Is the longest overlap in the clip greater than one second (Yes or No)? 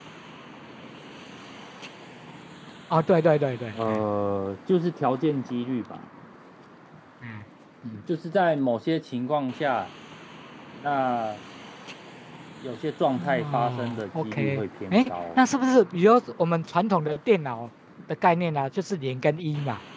Yes